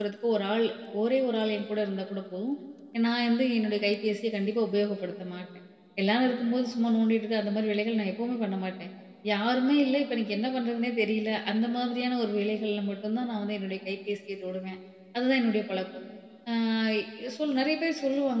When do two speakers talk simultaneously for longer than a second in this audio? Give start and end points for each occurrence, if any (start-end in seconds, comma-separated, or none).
none